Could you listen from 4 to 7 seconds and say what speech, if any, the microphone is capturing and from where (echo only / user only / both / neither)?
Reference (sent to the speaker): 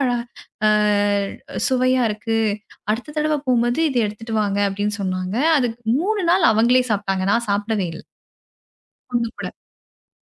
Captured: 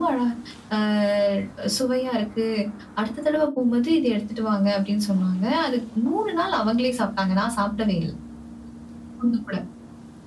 echo only